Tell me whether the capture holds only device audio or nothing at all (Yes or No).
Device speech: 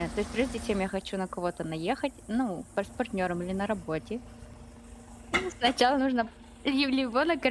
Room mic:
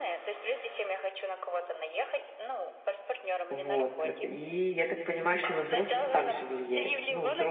No